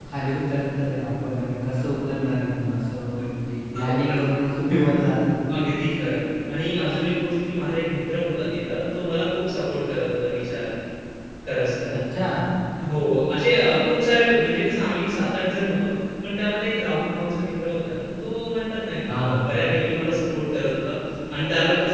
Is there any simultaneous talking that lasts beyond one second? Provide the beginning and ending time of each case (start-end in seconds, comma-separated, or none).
none